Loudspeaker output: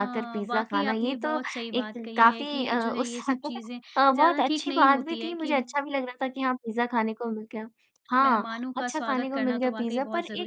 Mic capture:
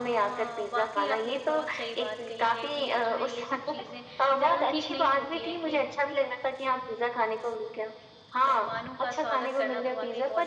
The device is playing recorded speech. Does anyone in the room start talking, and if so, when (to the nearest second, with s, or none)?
none